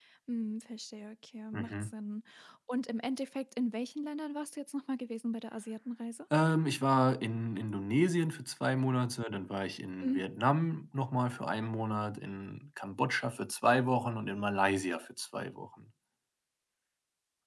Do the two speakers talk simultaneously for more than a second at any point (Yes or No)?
No